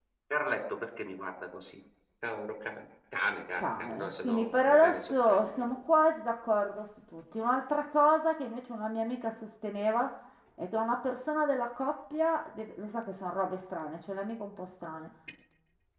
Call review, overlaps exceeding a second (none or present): present